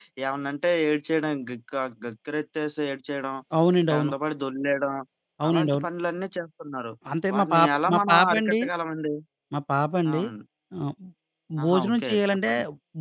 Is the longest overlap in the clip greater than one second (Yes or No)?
Yes